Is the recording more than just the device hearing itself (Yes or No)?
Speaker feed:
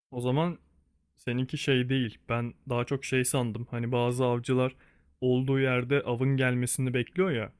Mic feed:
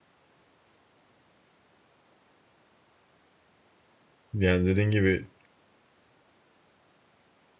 Yes